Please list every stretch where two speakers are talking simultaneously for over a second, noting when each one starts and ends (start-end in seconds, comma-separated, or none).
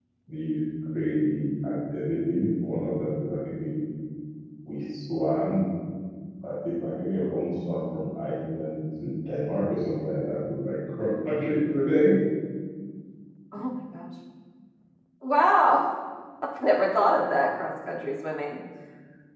none